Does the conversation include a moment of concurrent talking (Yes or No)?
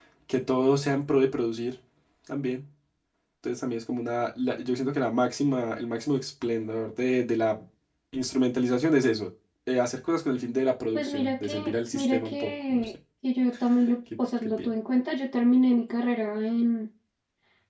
Yes